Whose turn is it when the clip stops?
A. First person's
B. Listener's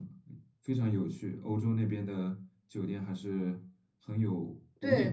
B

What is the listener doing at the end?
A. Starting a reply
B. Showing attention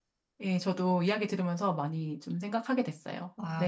A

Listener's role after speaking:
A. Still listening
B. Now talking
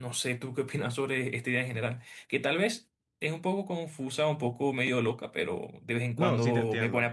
B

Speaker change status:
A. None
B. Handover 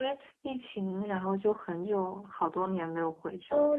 B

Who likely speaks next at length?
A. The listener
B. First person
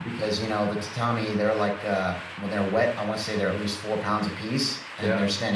B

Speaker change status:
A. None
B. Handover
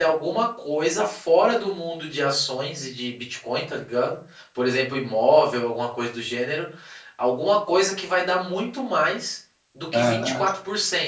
A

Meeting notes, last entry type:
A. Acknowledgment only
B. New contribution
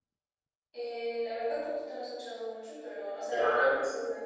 B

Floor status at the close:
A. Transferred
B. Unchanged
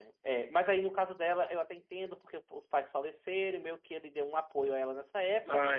B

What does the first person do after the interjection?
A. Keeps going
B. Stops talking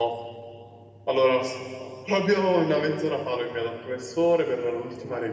A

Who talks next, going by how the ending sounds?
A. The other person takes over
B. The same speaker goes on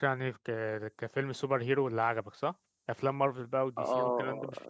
A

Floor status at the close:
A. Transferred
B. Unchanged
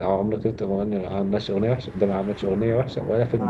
A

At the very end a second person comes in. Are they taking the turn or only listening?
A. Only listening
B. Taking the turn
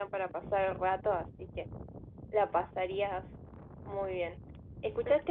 A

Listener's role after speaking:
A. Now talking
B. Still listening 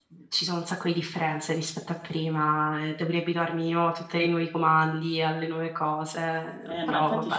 A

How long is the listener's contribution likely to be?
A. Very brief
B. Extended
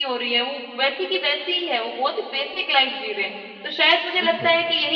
A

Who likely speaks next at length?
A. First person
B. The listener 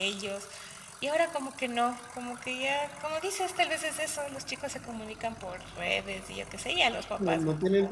B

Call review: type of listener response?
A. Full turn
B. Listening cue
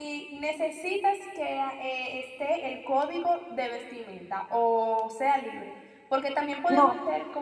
B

